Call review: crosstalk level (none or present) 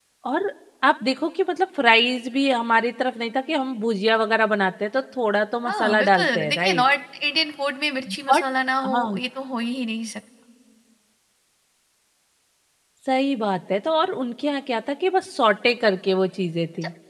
present